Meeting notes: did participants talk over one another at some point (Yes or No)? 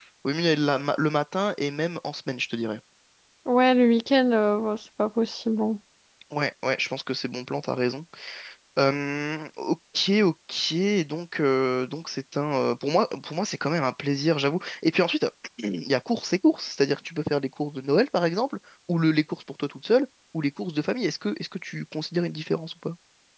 No